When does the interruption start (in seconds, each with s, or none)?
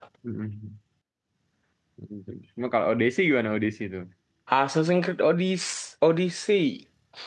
none